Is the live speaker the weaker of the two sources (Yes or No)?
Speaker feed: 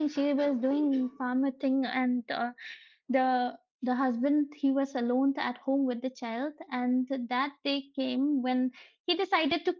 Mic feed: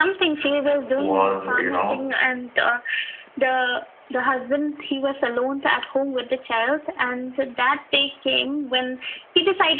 No